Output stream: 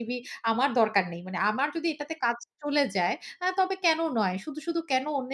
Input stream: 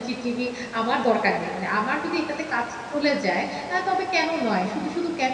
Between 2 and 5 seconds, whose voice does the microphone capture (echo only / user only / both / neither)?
echo only